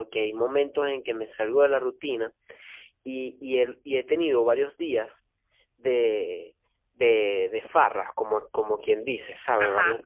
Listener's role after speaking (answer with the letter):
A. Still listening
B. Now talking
A